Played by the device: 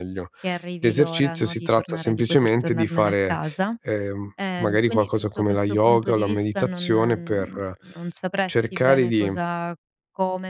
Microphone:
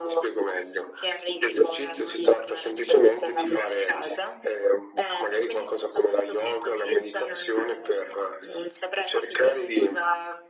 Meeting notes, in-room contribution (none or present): none